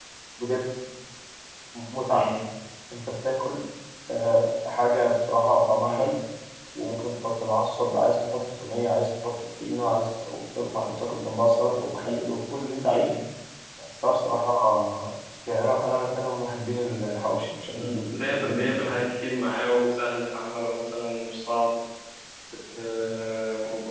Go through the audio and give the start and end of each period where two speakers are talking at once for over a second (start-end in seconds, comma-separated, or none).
17.7-19.0